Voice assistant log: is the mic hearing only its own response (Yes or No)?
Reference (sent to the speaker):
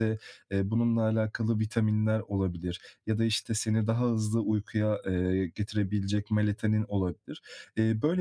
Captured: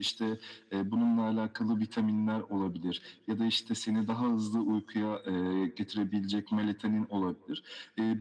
Yes